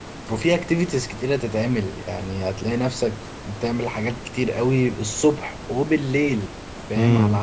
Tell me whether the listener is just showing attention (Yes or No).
Yes